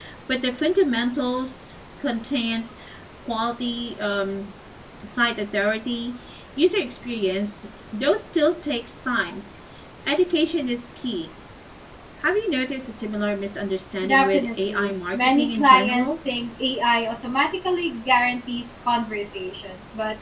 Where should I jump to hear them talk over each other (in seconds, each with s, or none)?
14.0 s